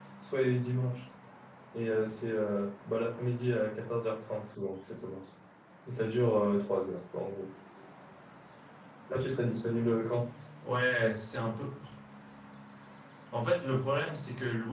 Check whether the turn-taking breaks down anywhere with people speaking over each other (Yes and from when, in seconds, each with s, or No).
No